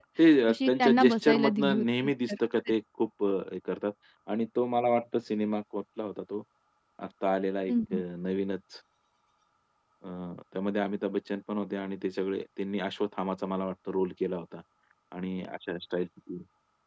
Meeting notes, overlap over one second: present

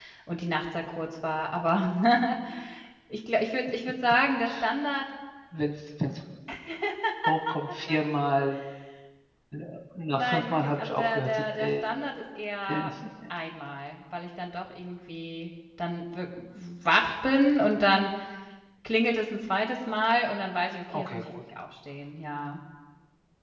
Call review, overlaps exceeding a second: present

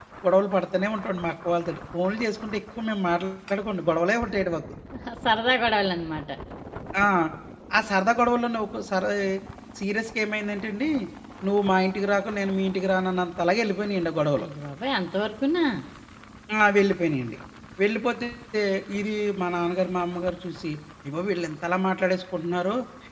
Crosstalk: none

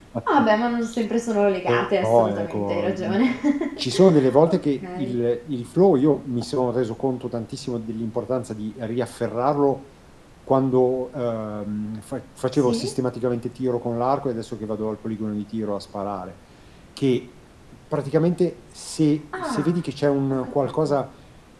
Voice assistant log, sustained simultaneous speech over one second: present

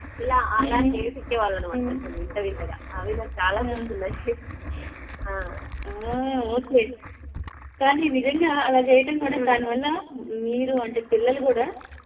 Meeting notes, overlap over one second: none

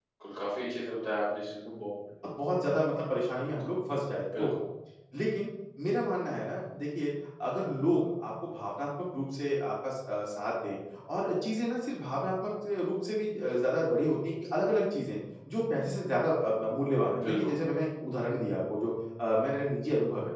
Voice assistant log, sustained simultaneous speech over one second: none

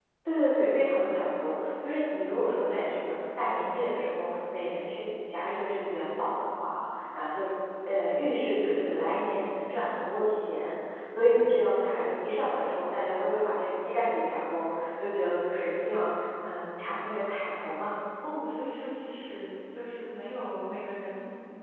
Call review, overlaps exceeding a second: none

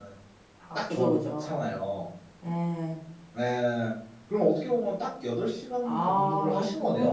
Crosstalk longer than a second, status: present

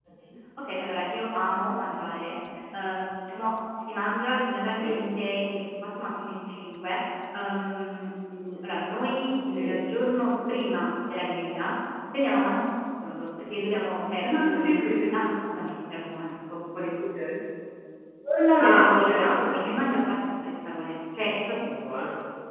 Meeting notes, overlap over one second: present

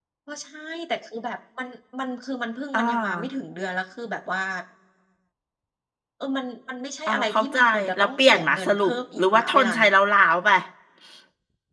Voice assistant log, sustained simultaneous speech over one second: present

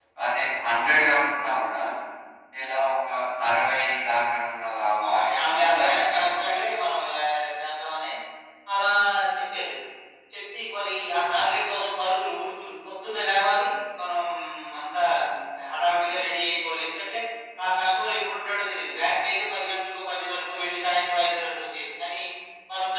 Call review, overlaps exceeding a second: present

